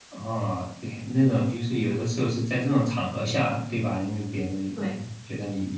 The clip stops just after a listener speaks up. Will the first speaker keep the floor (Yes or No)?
Yes